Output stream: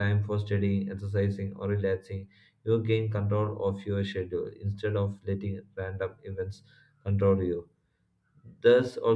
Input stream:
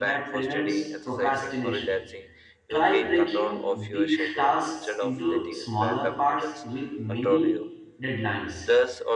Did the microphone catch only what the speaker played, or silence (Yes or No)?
No